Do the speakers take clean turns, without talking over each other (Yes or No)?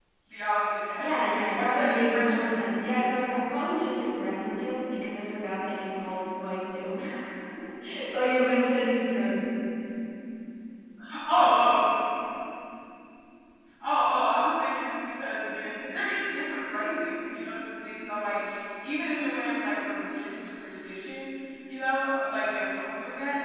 No